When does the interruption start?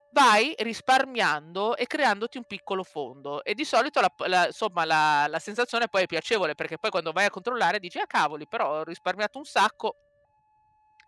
none

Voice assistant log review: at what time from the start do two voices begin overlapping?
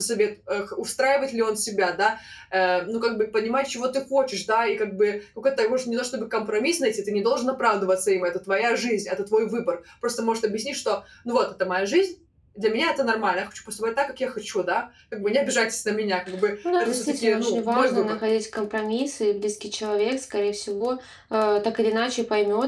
16.6 s

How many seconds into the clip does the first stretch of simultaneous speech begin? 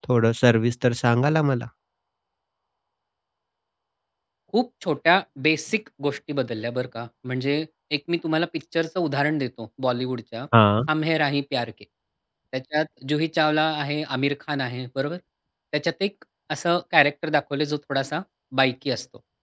none

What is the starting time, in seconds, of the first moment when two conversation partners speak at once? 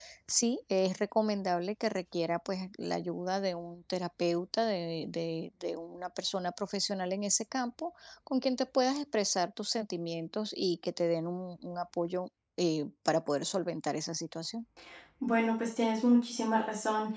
none

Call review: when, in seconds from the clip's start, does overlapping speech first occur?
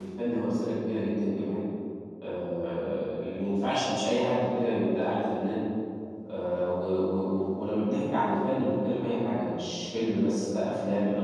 none

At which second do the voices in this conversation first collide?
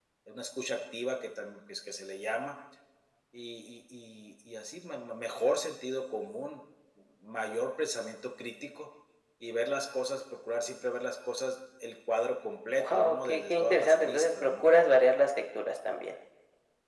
12.7 s

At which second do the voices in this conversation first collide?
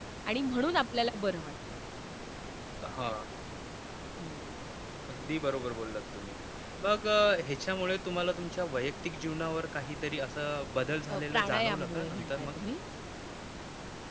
11.1 s

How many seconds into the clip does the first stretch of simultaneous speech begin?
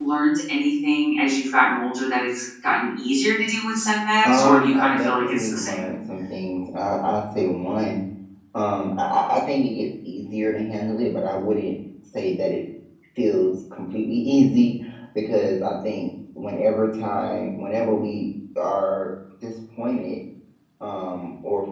4.2 s

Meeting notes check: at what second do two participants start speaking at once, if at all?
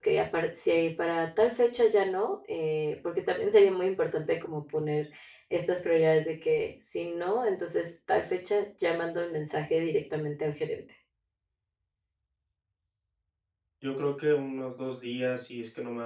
none

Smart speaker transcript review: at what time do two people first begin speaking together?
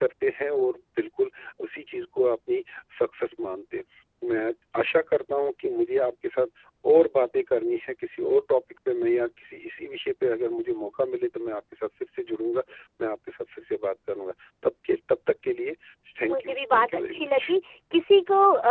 16.3 s

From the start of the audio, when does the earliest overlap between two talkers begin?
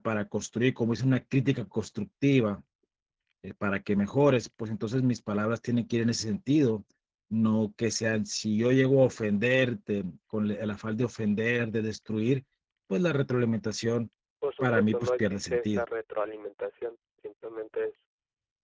14.6 s

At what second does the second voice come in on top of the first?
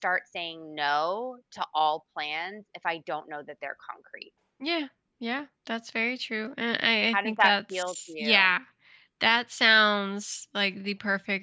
7.1 s

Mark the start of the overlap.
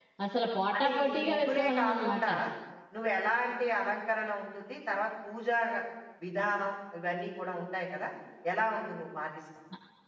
0.8 s

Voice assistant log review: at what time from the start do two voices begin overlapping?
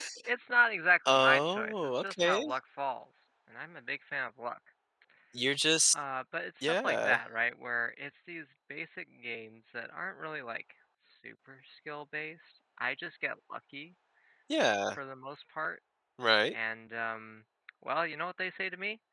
1.1 s

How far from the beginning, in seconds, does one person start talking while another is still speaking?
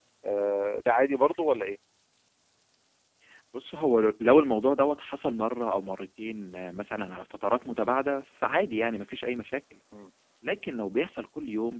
none

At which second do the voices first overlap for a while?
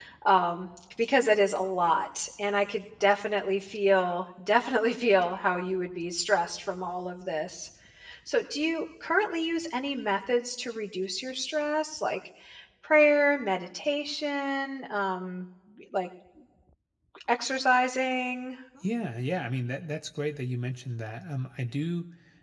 none

